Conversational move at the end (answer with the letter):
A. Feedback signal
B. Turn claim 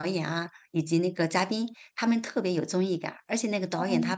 A